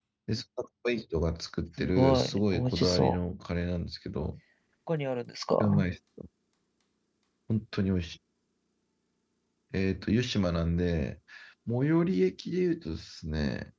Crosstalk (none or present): present